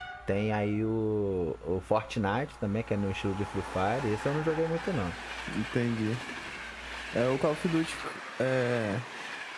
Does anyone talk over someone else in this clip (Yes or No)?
No